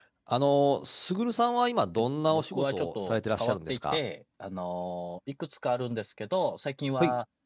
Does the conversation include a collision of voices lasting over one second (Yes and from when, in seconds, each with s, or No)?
Yes, from 2.3 s